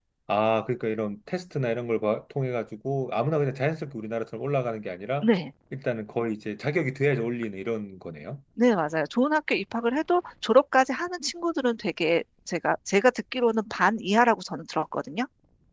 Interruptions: none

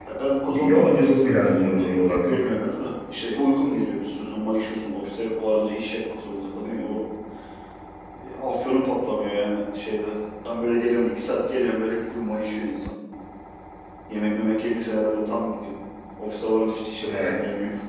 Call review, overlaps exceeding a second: present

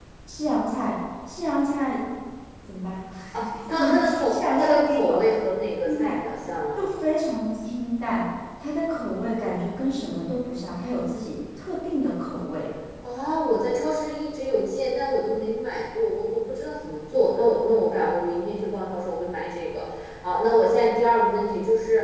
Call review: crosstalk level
present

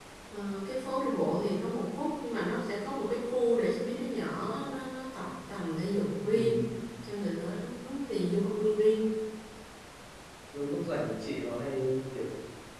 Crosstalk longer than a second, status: none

